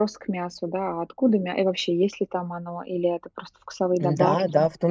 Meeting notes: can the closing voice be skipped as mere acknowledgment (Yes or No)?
No